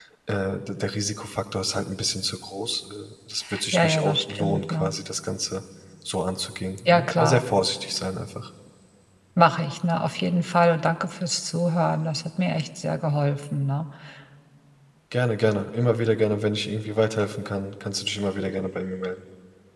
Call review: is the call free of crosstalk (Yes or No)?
No